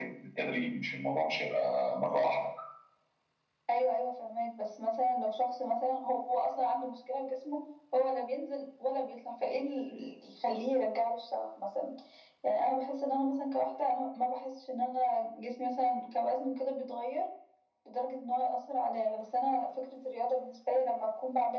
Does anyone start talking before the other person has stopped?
No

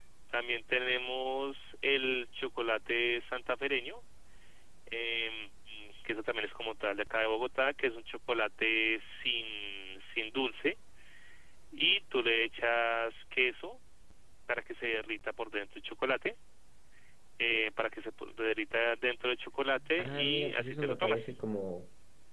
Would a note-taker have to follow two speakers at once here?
Yes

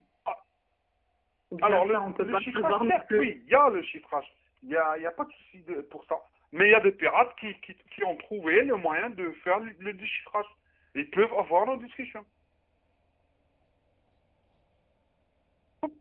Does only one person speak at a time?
No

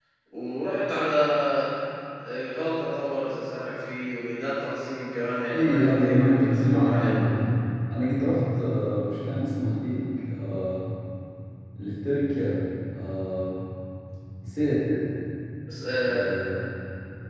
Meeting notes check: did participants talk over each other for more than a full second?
Yes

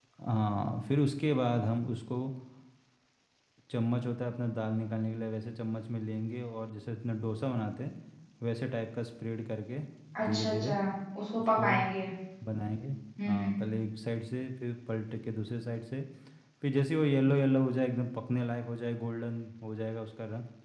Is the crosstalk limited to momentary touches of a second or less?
Yes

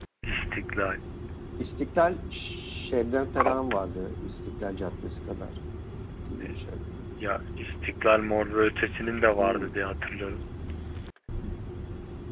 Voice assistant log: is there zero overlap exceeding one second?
Yes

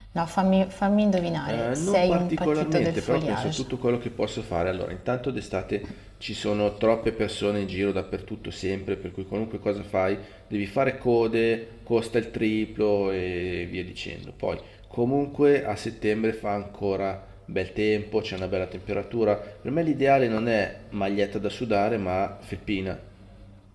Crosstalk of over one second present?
Yes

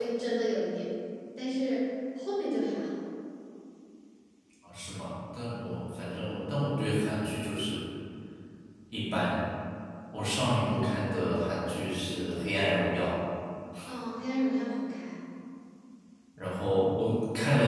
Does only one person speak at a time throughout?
Yes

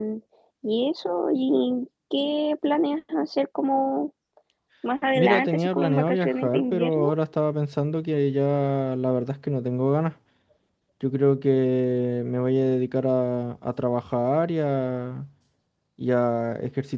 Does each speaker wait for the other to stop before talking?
No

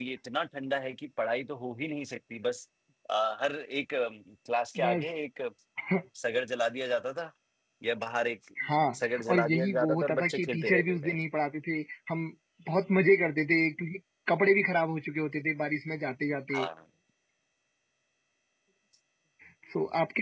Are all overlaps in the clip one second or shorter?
No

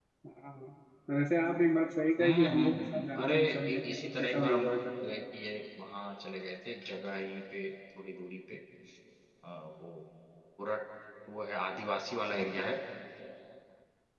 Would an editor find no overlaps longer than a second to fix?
No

